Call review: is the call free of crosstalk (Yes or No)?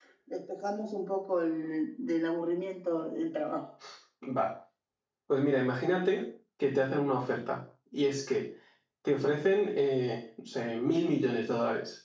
Yes